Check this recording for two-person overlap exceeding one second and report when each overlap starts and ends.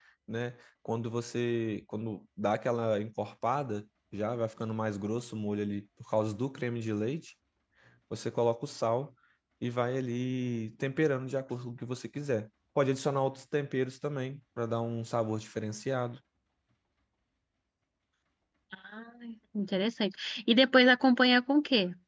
none

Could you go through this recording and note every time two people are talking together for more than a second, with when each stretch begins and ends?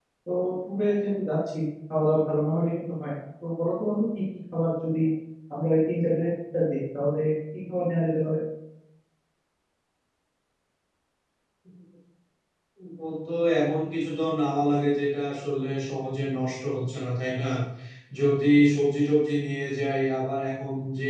none

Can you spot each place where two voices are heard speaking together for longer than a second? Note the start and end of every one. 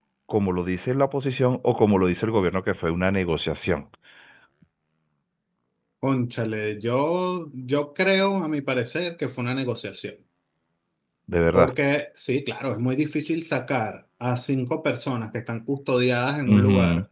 none

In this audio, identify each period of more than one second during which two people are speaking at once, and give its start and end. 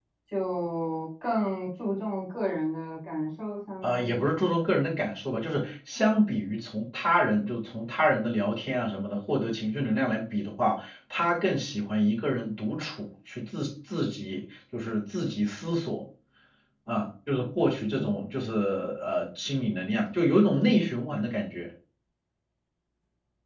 none

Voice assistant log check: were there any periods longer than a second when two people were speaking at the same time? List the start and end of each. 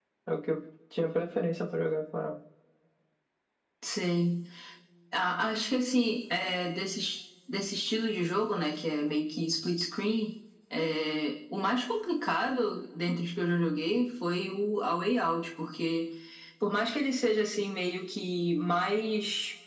none

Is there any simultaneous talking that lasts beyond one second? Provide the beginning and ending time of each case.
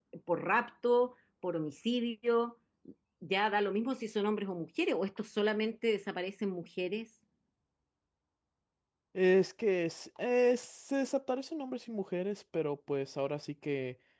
none

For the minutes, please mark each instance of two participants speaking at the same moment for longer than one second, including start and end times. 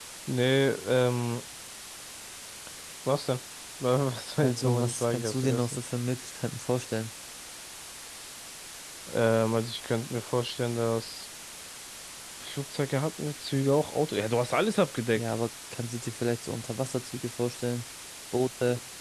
4.4-5.8

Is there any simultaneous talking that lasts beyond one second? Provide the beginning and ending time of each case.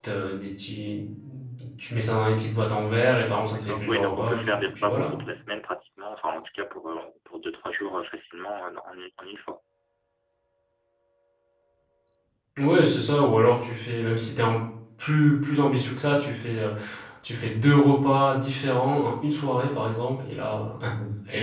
3.5-5.2

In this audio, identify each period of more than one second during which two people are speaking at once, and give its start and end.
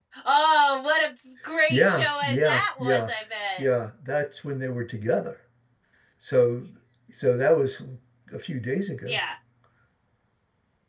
1.7-3.1

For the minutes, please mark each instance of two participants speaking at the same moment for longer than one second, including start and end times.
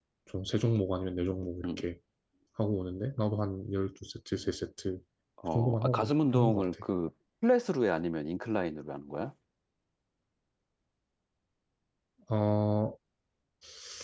5.5-6.8

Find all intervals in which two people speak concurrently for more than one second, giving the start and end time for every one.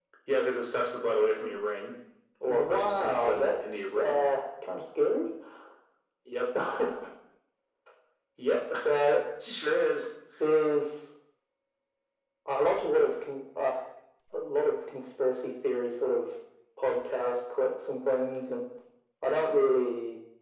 2.5-4.2

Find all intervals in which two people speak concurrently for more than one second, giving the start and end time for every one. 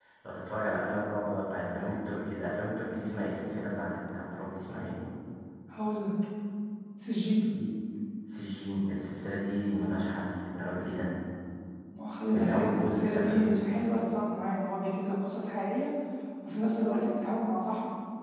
12.3-13.6

